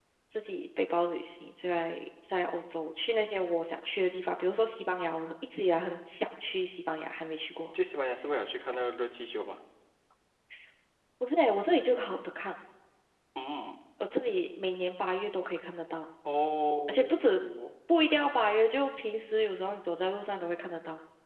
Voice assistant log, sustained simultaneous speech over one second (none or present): none